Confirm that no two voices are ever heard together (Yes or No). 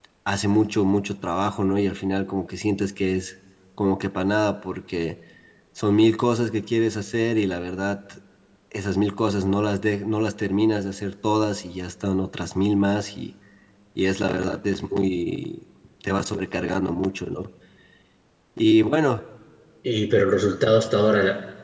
Yes